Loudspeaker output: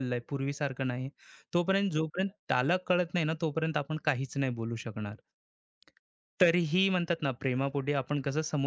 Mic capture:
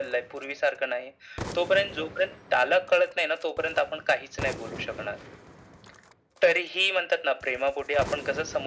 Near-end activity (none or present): none